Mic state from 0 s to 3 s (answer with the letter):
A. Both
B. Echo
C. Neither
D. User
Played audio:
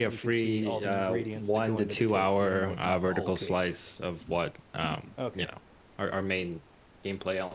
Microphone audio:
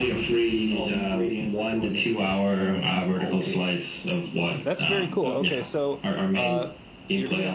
B